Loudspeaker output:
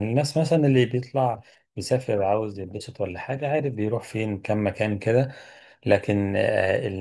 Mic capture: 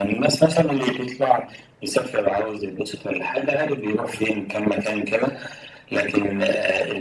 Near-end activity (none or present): none